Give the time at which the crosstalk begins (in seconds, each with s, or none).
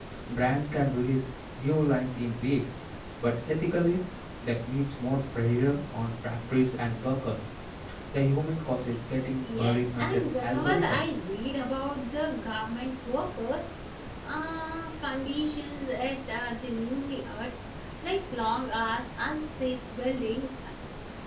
9.4 s